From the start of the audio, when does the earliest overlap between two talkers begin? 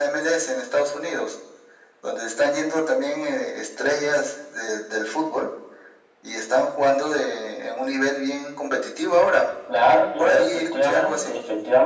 9.7 s

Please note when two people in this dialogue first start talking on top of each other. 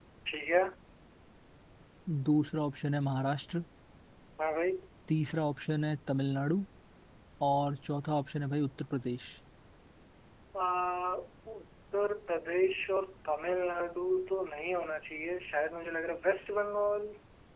none

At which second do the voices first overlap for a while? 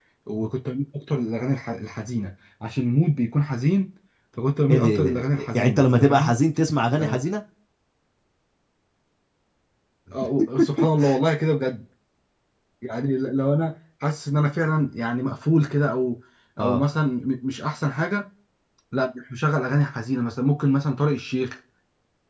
4.7 s

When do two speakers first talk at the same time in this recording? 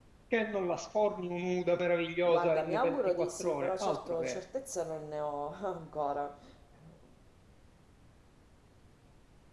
2.3 s

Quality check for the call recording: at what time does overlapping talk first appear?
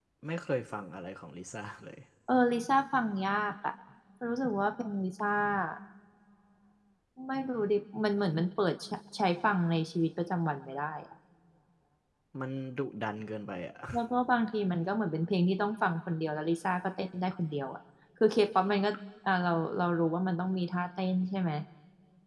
none

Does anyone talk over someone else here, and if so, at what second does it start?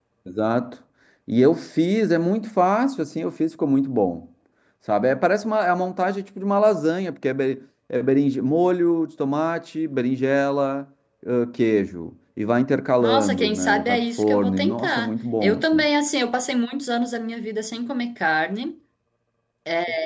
13.0 s

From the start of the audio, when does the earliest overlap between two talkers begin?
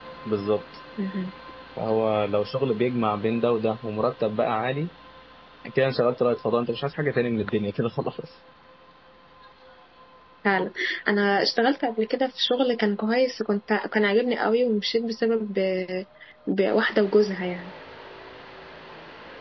none

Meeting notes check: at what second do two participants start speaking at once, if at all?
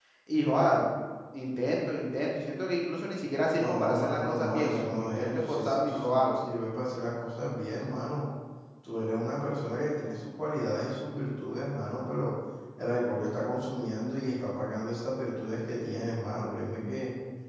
3.5 s

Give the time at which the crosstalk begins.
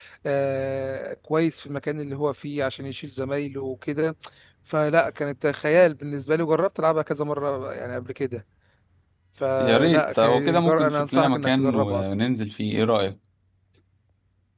9.6 s

